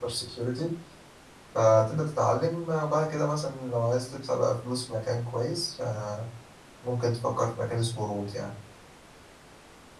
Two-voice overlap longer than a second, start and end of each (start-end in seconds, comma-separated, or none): none